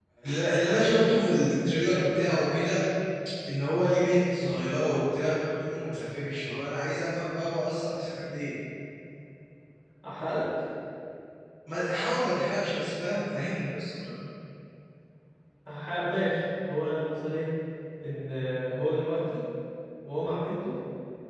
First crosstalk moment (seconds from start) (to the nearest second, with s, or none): none